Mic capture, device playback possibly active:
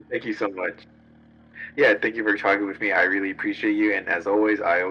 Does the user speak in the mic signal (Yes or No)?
No